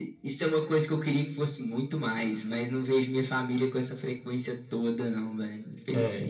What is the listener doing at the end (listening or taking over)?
taking over